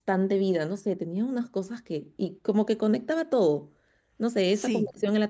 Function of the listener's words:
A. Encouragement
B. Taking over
A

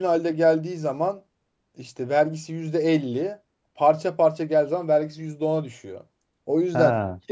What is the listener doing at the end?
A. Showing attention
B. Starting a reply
A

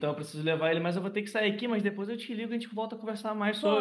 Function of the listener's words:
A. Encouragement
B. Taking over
B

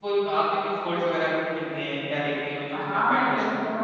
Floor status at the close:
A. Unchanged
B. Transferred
B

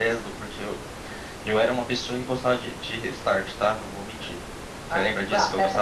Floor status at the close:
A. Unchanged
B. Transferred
B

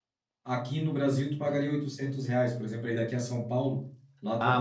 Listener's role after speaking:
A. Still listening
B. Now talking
B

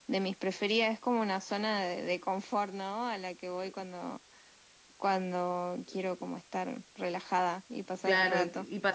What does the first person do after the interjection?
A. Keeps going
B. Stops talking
B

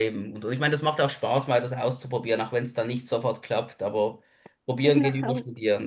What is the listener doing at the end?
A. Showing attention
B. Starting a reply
A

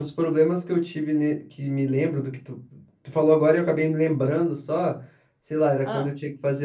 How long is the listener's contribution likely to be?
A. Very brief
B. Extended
A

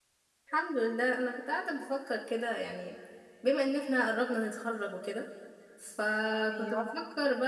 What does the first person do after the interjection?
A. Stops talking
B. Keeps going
B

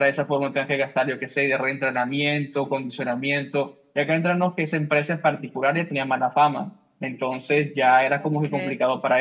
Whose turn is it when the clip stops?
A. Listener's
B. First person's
B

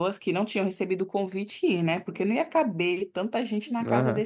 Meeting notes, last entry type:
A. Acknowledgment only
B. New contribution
B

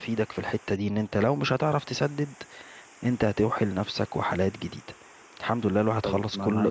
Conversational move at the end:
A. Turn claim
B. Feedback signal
A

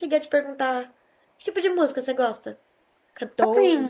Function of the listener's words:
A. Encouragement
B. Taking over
B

